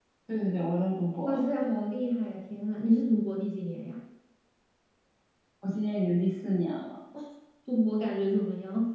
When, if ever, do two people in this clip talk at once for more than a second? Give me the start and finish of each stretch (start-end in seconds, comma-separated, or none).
none